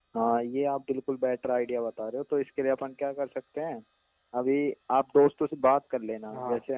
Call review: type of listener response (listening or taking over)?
listening